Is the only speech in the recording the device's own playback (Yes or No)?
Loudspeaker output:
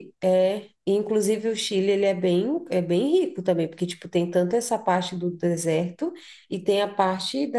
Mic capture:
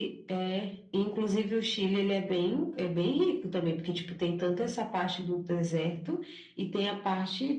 Yes